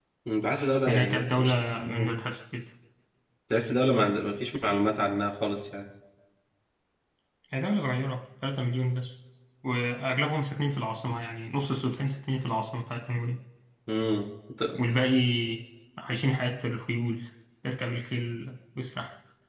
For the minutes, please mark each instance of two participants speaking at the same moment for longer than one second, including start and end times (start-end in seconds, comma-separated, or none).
0.9-2.1